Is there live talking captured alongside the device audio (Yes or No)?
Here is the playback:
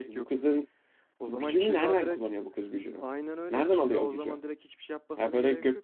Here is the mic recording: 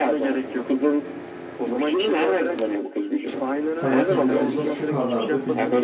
Yes